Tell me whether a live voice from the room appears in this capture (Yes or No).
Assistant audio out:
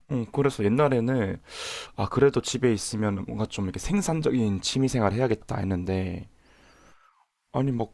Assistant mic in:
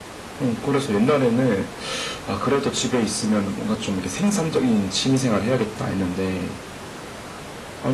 No